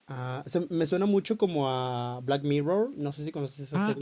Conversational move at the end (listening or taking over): taking over